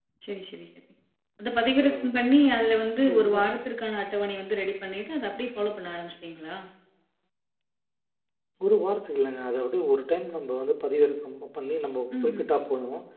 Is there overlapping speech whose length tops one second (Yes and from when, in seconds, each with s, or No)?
No